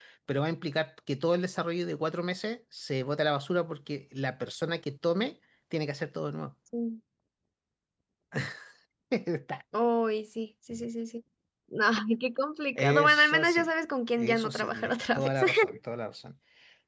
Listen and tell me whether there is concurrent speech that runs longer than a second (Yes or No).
Yes